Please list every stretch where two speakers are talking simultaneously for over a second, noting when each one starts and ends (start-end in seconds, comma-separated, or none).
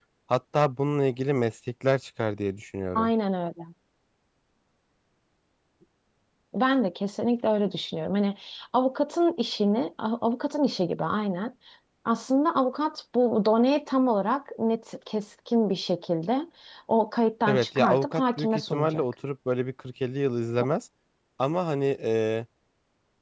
17.5-19.0